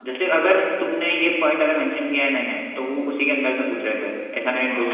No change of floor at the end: No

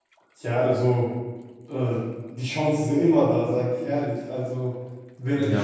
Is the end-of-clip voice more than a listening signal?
Yes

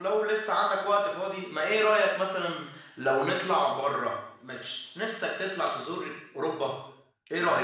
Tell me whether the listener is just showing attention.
No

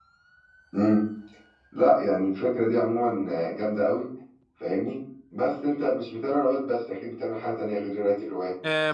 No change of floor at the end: No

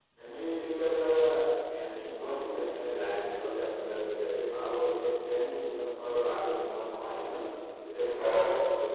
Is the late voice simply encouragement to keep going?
Yes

